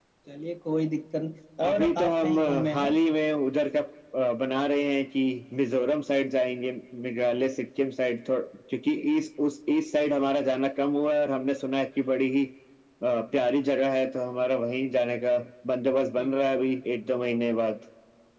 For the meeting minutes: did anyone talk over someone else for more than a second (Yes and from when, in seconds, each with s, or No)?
Yes, from 1.6 s